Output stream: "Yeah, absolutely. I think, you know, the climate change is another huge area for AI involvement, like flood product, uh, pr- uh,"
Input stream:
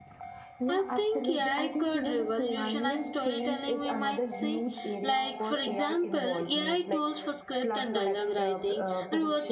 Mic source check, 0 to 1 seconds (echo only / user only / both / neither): both